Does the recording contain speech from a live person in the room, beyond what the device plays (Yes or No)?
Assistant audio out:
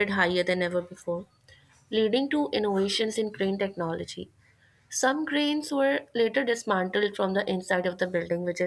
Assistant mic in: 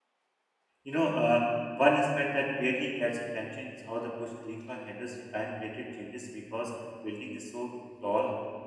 Yes